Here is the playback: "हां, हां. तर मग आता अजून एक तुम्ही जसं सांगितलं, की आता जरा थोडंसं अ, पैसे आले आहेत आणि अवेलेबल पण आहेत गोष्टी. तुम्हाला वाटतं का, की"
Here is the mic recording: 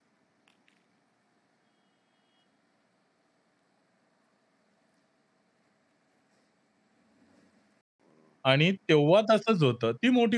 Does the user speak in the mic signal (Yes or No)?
Yes